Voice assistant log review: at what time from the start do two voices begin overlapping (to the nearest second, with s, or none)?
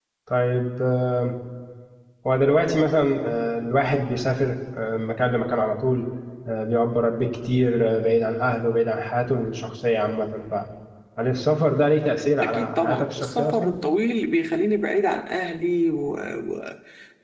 12 s